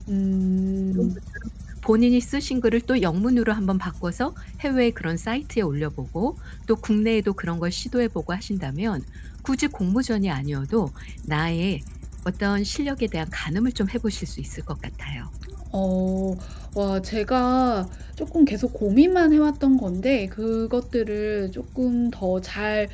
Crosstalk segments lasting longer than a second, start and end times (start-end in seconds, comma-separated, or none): none